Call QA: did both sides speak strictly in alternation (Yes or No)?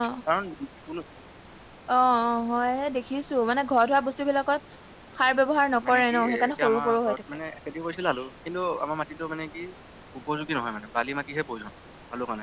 No